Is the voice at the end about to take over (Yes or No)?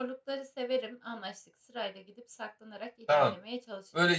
Yes